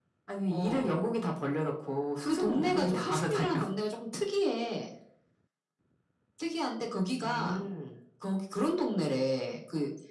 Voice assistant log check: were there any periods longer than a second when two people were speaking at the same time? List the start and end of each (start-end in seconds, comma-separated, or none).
2.2-3.5